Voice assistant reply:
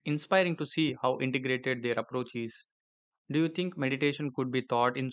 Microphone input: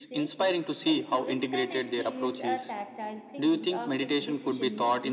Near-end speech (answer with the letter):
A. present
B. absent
A